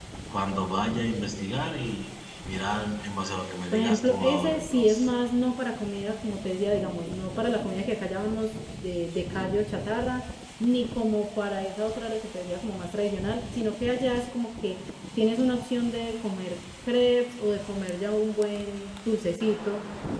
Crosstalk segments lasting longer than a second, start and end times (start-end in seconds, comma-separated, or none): 3.7-5.1